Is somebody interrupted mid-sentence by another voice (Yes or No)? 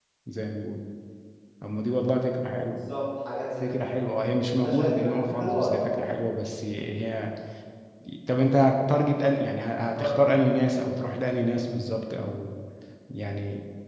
Yes